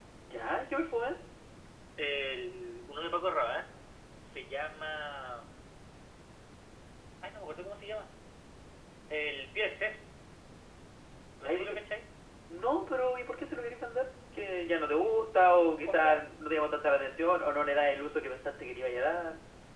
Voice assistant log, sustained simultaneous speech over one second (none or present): none